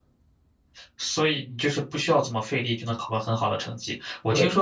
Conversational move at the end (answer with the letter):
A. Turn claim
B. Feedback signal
B